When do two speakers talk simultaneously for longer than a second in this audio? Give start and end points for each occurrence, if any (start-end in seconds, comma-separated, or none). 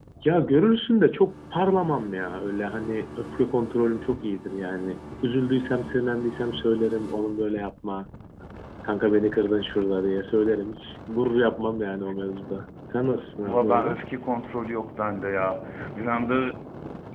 none